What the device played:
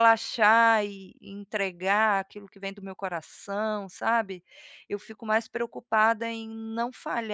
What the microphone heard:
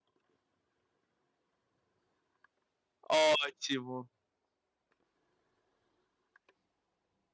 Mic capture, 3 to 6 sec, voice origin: user only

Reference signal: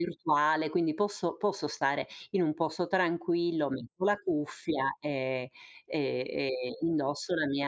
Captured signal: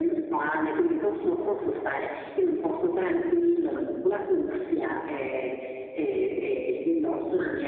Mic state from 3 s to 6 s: echo only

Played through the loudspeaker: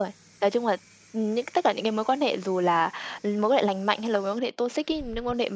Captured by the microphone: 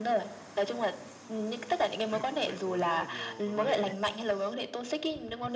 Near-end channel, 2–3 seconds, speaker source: both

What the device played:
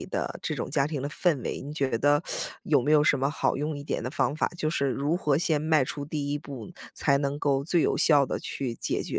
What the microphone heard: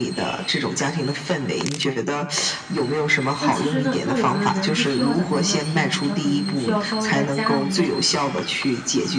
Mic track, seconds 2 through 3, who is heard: echo only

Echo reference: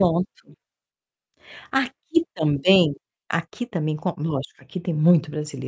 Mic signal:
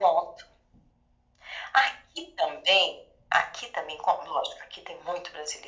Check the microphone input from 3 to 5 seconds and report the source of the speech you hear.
echo only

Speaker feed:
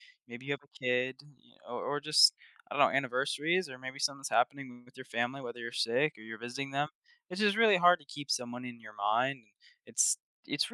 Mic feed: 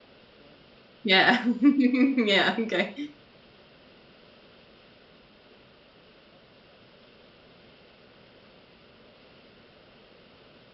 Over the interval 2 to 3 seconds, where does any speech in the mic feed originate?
user only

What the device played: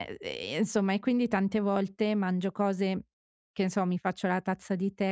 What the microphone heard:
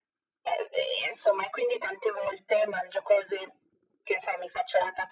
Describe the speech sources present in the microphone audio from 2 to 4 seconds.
echo only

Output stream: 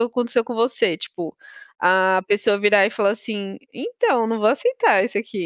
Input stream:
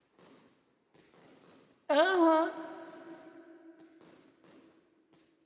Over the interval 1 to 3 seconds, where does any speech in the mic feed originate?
user only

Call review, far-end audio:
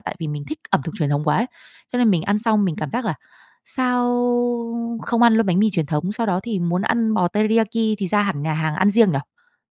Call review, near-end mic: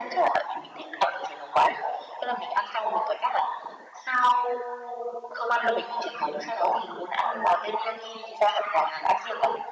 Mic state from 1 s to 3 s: echo only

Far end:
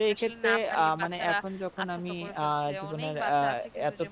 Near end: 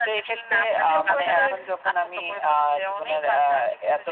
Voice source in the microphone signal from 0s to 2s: both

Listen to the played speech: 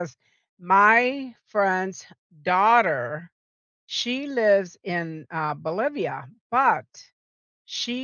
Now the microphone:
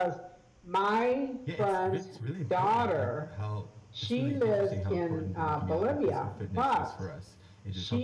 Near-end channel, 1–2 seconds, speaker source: both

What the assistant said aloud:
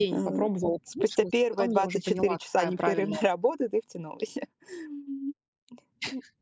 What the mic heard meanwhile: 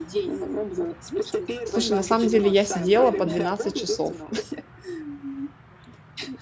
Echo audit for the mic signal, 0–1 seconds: echo only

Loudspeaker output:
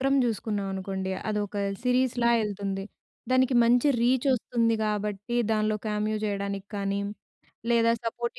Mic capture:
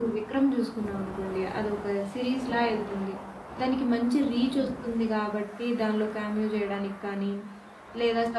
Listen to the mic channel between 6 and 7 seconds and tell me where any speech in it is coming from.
echo only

